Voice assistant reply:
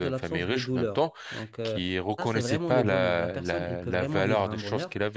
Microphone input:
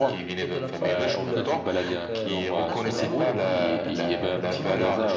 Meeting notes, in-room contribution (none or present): present